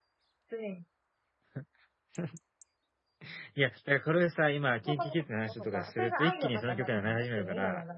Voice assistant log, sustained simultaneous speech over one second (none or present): present